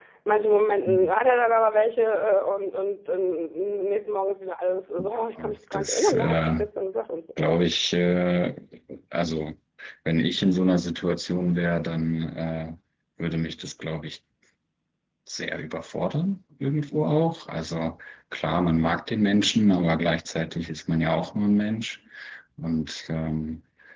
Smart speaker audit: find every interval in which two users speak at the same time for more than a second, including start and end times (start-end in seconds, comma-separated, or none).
5.4-6.6